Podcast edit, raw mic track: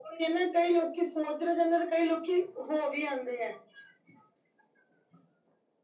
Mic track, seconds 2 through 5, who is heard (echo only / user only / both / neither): echo only